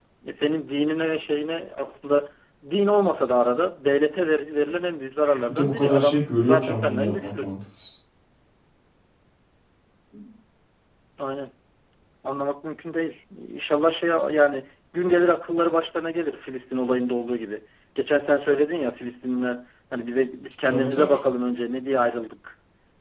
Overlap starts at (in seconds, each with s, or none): 5.5 s